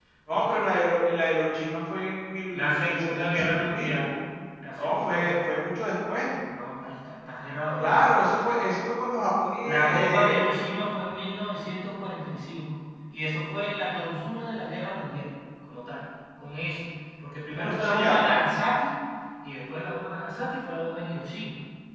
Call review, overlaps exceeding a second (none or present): present